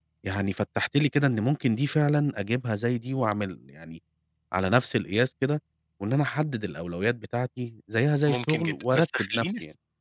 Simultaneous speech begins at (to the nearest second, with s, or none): 8 s